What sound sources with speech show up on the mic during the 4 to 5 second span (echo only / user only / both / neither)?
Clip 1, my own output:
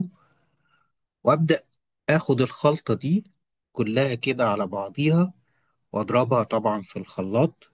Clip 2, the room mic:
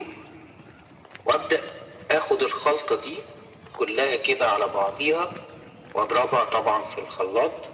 echo only